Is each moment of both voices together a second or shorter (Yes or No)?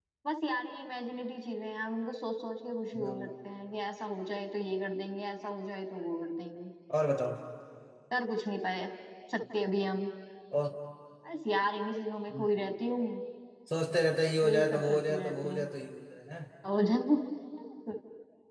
No